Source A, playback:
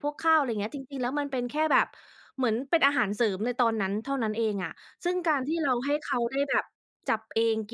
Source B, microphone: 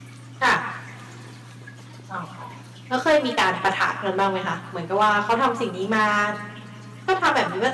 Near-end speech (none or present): present